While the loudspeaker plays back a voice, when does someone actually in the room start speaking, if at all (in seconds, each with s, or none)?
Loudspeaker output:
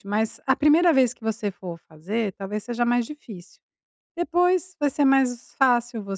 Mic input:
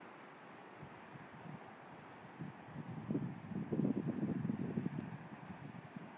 none